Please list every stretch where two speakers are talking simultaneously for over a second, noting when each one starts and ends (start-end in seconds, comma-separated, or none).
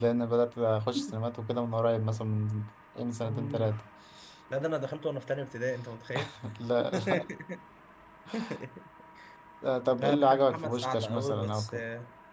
10.0-11.8